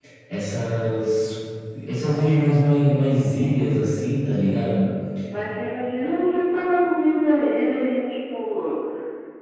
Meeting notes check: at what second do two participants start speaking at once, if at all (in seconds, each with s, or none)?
none